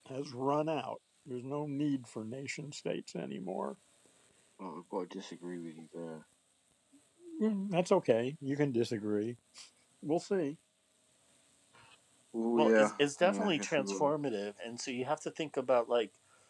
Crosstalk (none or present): present